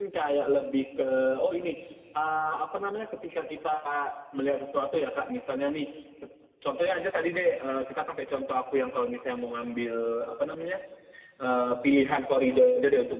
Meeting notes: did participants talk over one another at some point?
No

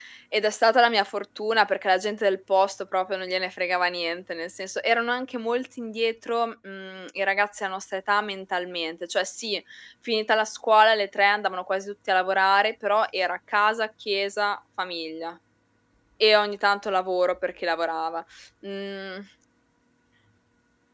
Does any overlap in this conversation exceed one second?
No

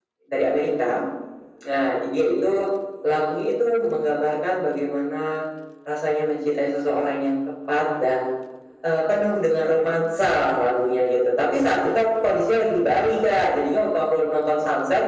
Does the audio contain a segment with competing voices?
No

